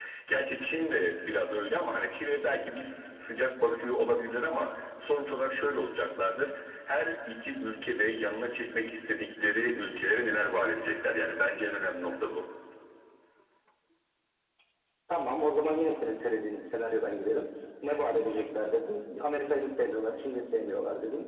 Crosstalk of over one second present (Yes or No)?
No